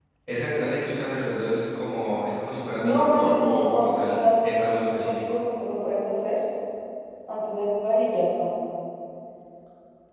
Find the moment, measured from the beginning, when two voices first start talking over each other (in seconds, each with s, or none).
2.8 s